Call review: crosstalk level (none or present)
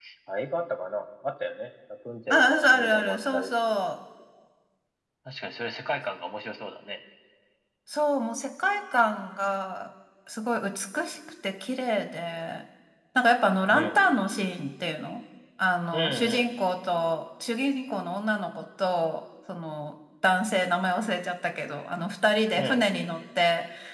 present